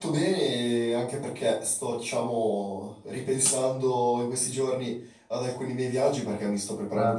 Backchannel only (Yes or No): Yes